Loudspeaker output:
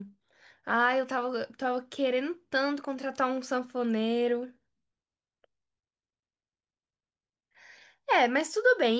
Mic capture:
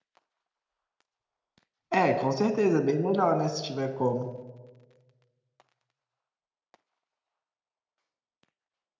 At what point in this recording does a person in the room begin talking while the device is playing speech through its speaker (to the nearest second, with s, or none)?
2 s